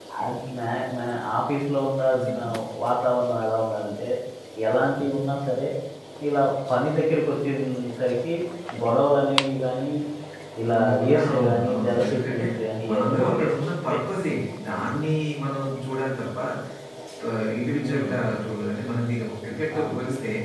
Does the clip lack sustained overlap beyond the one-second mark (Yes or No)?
No